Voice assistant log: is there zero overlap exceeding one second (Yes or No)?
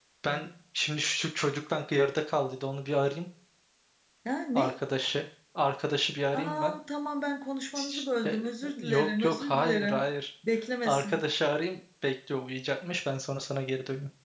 No